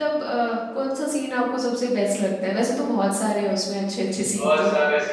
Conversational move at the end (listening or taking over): taking over